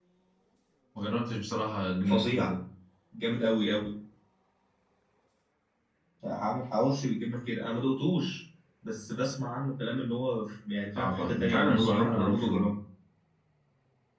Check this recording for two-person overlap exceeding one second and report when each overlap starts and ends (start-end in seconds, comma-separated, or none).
11.0-12.7